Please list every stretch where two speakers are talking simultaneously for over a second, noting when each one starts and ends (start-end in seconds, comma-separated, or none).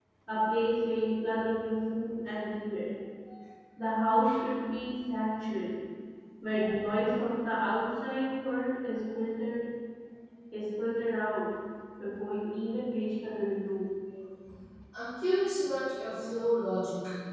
none